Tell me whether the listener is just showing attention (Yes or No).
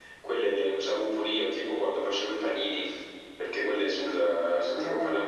Yes